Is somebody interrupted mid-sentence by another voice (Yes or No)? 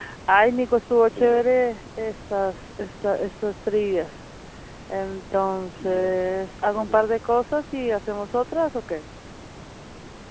Yes